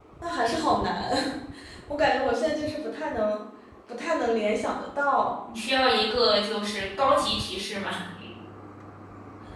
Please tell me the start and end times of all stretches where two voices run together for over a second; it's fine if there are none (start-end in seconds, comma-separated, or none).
none